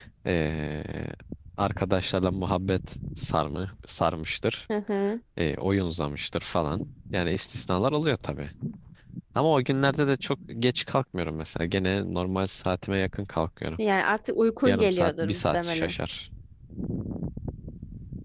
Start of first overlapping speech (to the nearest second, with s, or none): 15 s